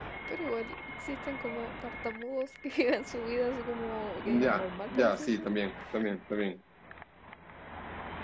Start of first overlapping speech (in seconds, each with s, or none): 4.2 s